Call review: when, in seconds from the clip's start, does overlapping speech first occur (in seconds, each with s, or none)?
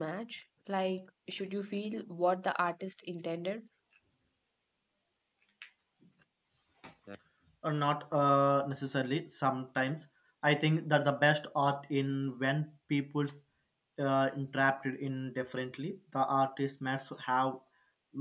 none